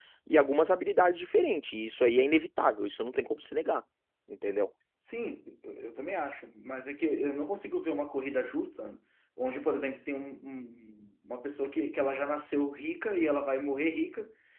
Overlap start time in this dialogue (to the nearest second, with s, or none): none